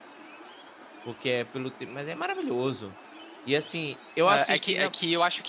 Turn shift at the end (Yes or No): Yes